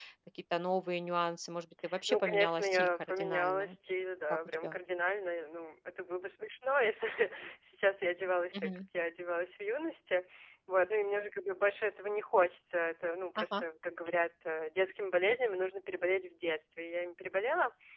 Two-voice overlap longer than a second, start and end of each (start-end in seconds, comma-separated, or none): 2.1-3.8